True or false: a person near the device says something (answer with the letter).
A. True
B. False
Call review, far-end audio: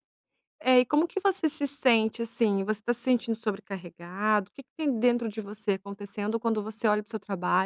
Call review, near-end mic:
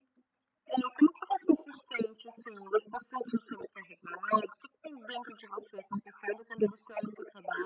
B